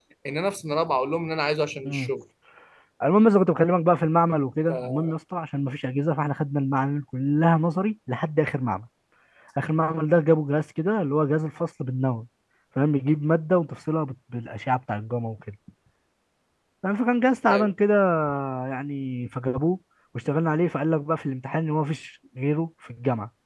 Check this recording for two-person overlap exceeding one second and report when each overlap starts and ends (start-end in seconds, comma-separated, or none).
none